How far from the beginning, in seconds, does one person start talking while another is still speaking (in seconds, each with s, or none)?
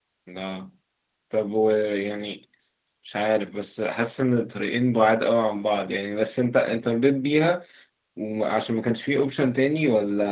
none